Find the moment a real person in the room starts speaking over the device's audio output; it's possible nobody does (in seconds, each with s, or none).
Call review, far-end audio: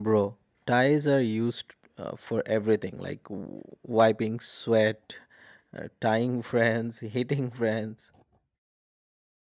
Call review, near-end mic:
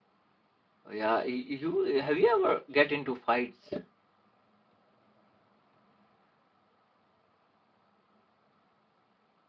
0.8 s